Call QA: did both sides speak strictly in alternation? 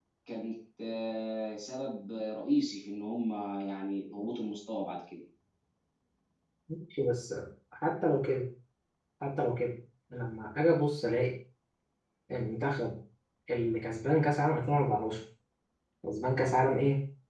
Yes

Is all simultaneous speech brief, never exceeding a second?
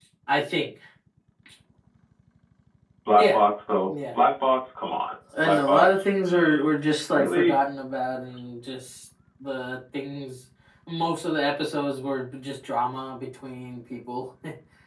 Yes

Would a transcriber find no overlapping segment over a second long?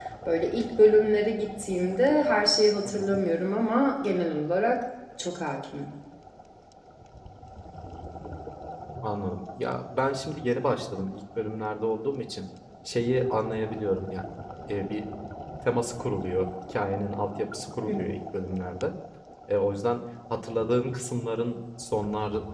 Yes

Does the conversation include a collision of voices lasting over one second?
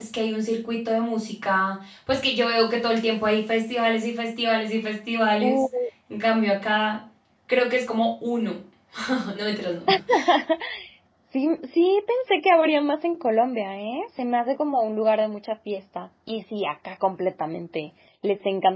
No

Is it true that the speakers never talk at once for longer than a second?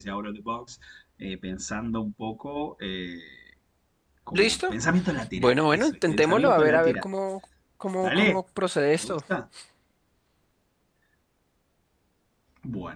No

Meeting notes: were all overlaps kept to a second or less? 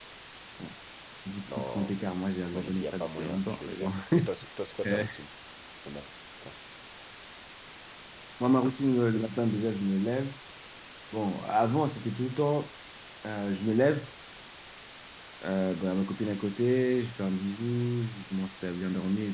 No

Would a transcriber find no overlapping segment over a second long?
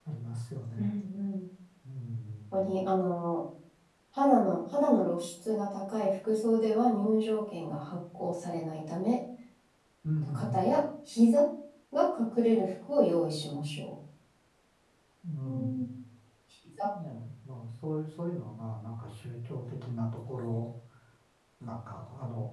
Yes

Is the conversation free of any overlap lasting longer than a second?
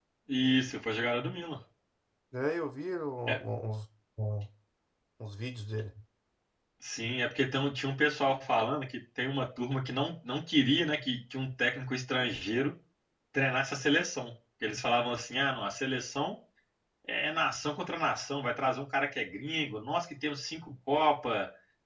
Yes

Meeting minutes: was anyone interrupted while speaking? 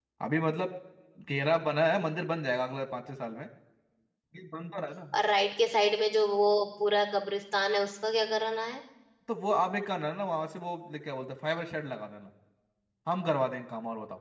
No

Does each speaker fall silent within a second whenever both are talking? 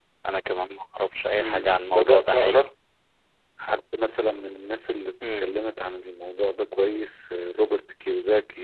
No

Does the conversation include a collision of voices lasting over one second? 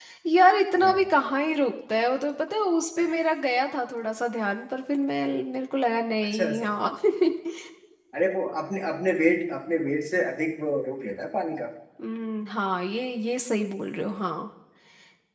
No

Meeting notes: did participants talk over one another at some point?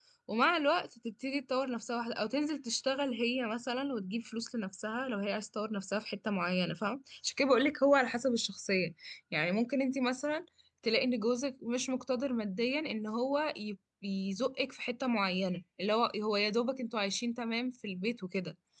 No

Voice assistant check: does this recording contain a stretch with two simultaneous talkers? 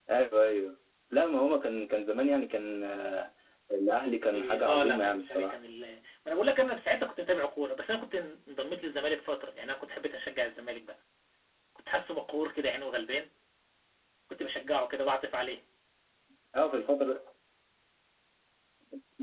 Yes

